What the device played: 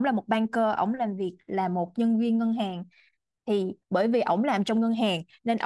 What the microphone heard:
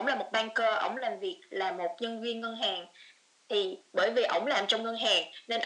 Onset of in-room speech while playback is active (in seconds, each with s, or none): none